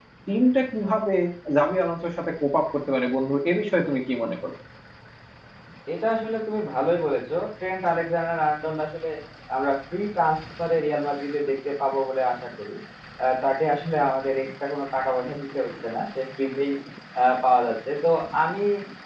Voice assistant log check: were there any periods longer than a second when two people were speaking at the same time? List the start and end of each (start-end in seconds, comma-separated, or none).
none